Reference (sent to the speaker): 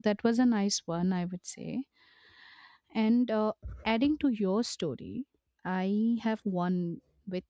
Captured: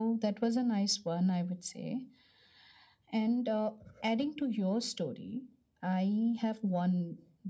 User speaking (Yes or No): No